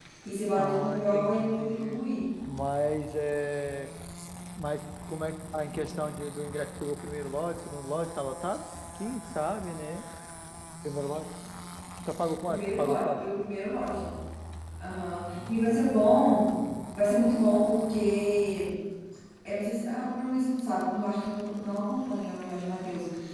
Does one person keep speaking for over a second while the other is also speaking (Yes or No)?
Yes